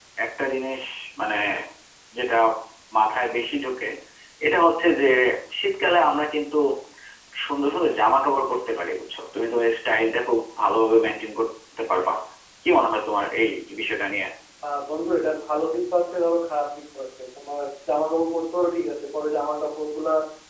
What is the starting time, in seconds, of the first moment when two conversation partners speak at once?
none

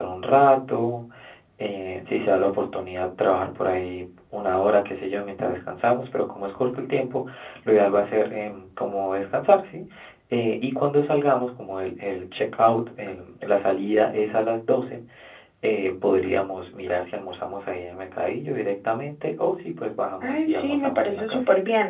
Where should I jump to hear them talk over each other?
20.2 s

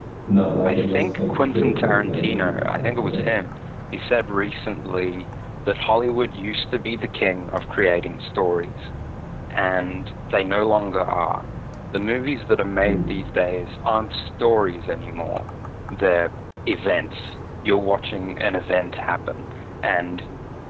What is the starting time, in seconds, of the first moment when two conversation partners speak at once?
0.7 s

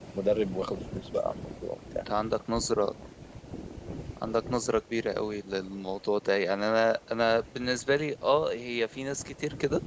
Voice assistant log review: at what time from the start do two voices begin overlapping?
none

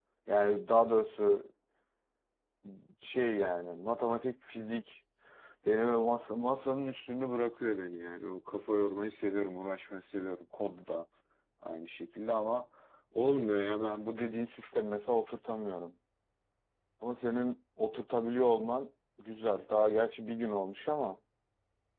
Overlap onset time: none

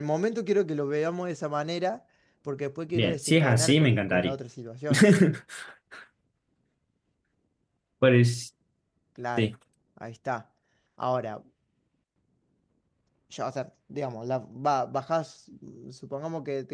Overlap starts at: 2.9 s

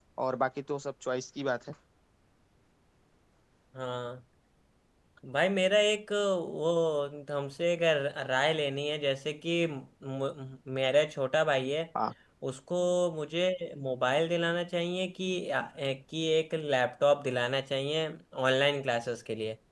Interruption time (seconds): none

